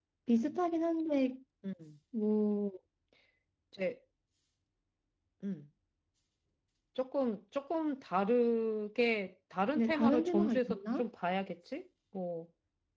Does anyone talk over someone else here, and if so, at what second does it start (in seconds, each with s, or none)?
9.8 s